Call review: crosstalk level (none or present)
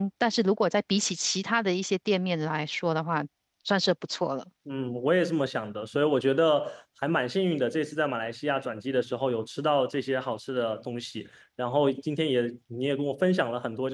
none